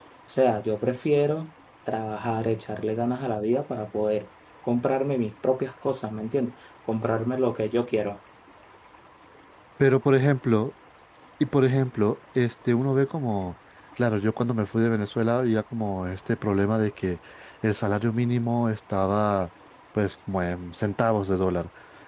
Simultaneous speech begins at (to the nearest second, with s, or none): none